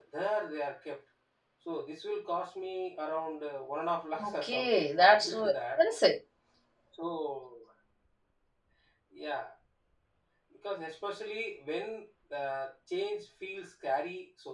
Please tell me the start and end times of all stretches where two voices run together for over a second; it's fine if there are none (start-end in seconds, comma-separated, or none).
4.2-5.8